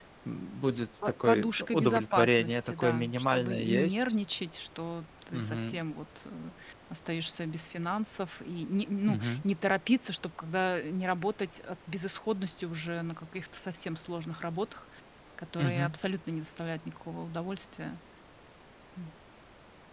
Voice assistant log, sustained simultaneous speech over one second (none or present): present